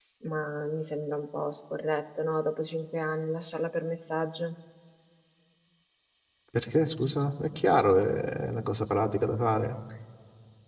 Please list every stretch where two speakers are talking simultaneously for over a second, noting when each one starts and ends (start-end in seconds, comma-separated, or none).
none